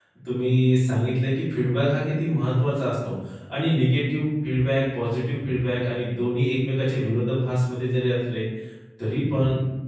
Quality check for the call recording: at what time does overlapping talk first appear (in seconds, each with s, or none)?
none